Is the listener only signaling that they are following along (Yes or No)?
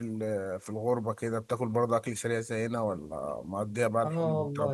No